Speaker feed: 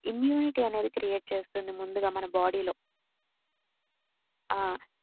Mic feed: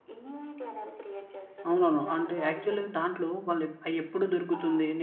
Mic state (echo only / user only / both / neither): both